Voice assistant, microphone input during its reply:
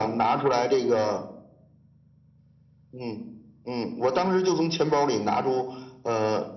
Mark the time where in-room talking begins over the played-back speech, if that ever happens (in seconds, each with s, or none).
none